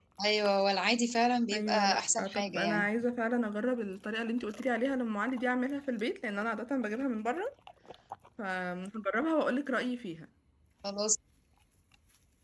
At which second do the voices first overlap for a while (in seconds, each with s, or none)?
1.5 s